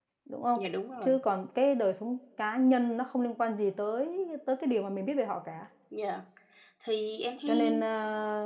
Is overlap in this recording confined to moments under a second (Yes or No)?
Yes